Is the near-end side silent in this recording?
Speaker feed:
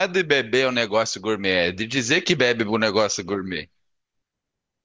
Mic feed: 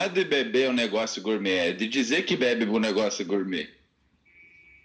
Yes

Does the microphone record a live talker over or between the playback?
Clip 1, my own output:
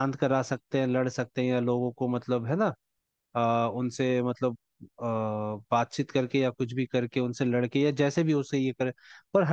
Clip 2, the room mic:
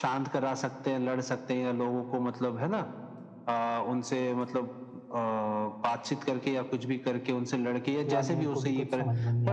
Yes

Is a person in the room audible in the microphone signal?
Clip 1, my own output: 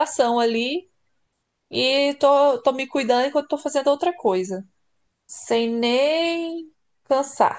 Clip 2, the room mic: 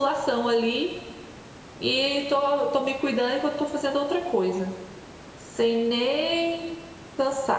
No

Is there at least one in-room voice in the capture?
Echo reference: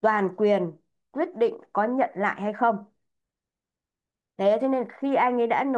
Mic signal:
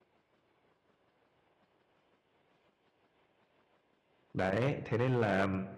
Yes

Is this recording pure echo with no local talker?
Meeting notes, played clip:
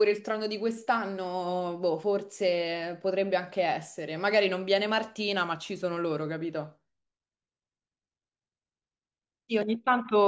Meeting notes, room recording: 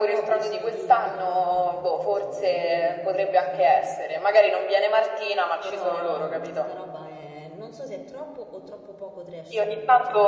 No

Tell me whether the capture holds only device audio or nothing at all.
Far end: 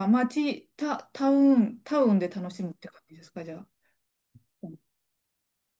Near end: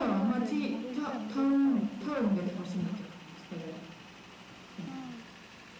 No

